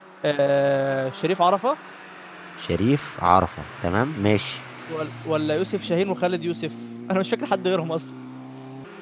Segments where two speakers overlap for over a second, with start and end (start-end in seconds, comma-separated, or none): none